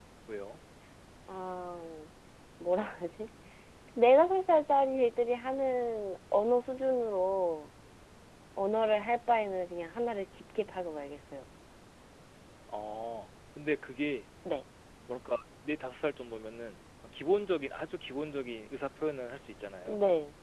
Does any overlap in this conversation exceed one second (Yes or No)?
No